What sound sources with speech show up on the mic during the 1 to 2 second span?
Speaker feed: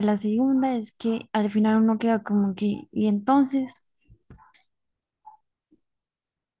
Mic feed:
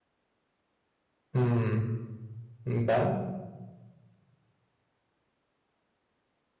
user only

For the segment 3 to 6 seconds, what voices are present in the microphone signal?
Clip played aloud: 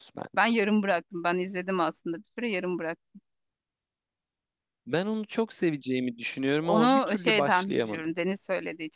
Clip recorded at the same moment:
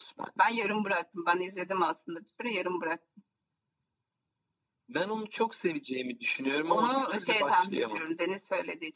echo only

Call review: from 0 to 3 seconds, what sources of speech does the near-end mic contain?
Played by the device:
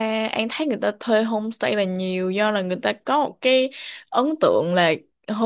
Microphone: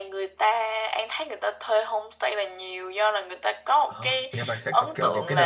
echo only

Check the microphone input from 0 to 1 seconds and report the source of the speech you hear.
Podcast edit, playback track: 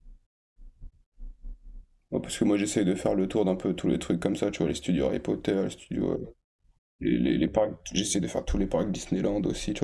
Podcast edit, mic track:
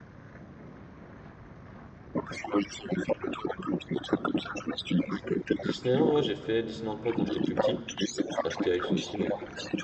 neither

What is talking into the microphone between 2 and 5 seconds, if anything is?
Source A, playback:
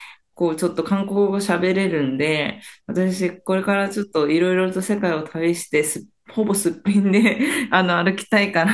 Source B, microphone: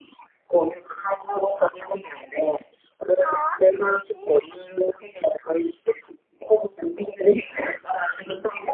both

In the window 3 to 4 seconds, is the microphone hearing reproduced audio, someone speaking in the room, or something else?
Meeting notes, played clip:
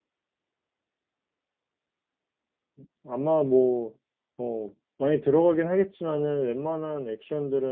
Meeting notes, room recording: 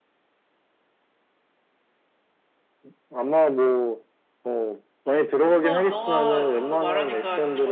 echo only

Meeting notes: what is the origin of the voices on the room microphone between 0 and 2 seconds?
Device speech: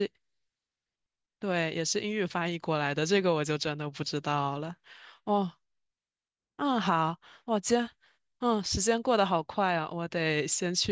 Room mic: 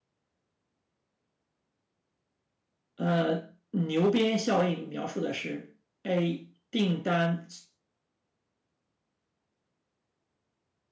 neither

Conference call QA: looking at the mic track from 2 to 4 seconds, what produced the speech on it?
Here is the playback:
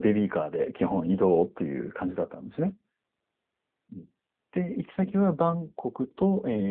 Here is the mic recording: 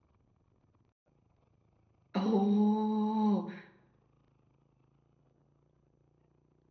user only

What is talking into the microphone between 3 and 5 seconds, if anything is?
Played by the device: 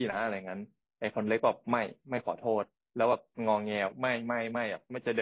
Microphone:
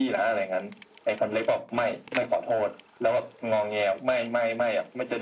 echo only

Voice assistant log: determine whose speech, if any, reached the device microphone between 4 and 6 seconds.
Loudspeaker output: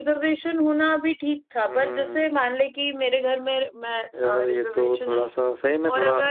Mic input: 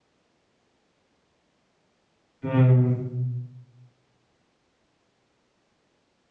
neither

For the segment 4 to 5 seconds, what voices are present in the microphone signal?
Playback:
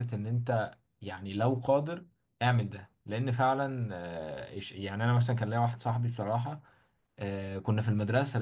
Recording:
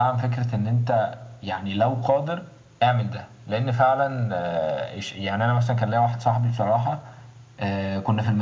echo only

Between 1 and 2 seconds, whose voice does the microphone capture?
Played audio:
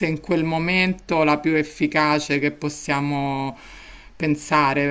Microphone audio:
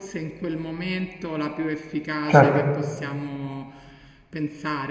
echo only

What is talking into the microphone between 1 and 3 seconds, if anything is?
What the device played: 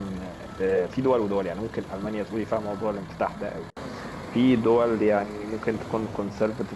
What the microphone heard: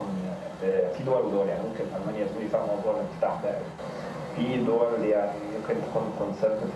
echo only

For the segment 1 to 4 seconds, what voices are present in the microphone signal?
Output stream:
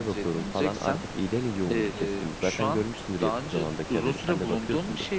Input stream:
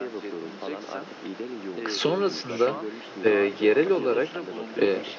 both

